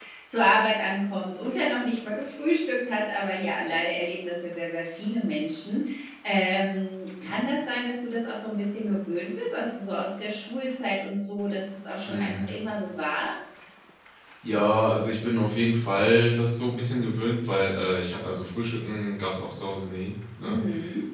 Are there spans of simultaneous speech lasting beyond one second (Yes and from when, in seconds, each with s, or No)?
No